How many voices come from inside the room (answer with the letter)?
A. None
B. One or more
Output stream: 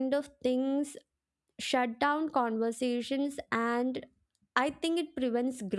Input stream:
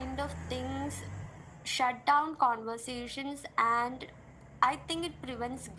A